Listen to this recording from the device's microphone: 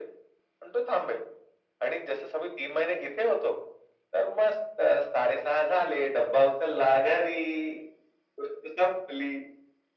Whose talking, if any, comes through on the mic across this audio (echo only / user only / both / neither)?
echo only